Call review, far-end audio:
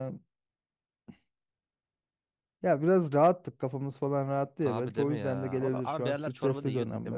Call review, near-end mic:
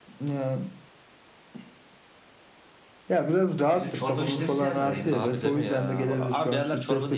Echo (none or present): present